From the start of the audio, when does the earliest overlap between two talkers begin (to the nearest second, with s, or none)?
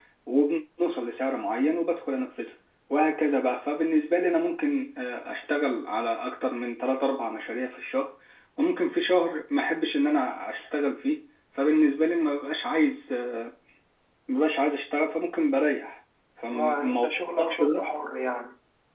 16 s